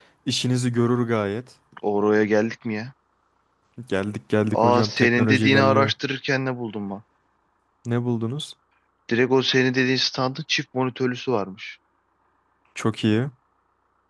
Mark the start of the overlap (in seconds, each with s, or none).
4.5 s